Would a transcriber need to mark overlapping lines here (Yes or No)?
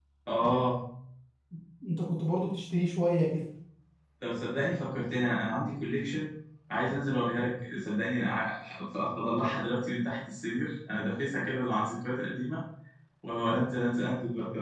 No